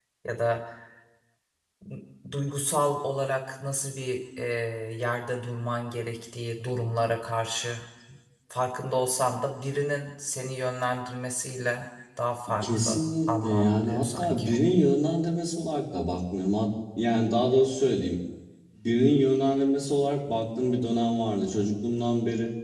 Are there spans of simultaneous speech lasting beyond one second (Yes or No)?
Yes